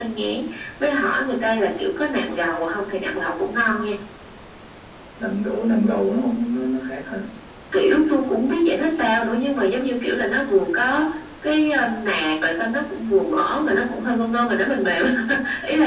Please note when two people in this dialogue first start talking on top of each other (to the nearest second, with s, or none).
none